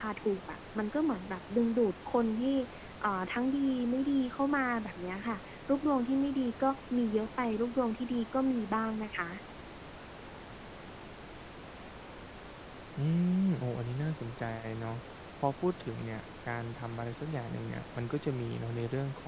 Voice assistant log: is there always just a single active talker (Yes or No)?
Yes